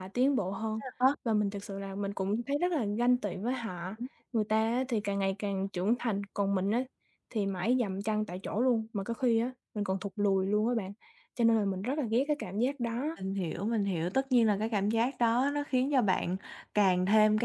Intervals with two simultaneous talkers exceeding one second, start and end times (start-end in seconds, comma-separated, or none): none